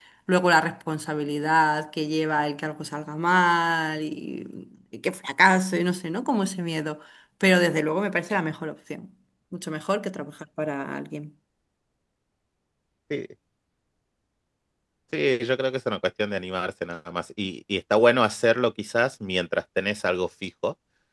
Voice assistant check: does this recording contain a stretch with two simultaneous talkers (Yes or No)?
No